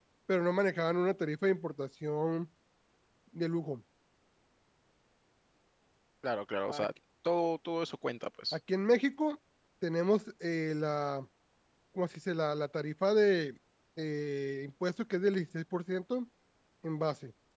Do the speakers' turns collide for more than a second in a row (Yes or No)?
No